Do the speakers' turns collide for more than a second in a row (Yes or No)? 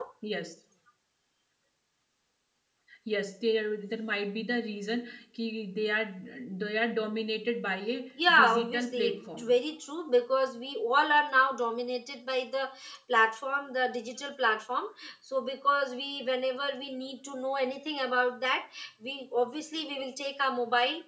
Yes